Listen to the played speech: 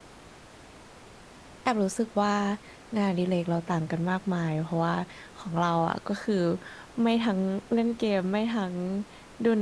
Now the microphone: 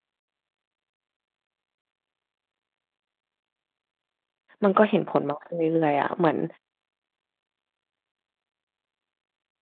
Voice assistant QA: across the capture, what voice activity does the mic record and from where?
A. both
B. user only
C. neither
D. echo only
B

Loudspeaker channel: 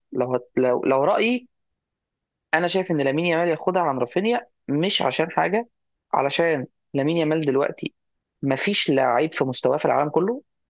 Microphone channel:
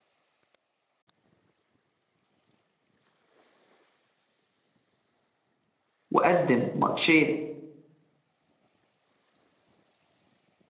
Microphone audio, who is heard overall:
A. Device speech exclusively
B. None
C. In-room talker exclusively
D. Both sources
C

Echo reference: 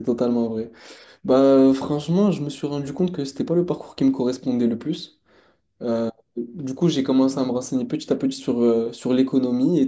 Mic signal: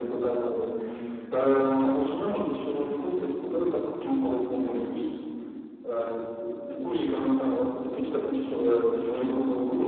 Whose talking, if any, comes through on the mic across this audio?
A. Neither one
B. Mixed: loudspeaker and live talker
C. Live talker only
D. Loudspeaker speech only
D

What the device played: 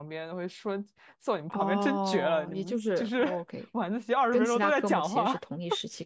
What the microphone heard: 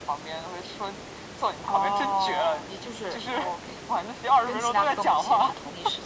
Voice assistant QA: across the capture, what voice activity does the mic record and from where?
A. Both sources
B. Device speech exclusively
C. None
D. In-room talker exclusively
B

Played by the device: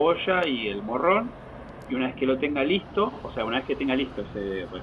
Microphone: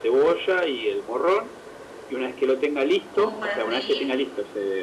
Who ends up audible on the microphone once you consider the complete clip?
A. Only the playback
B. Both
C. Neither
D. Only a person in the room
B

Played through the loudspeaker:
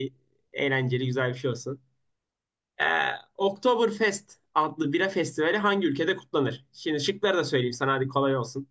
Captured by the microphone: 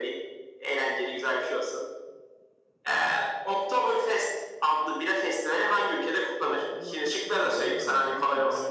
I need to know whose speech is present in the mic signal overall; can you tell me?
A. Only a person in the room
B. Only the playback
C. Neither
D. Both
D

